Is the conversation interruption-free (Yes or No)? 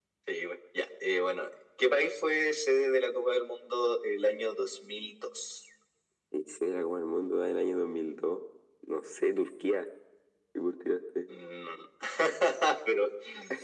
Yes